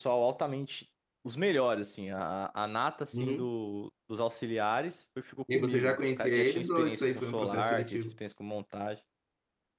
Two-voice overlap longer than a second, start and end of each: 5.5-8.0

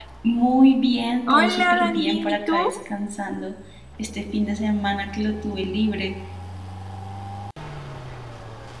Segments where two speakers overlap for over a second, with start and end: 1.3-2.7

